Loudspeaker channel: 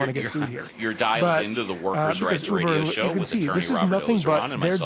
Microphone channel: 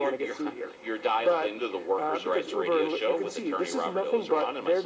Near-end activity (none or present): none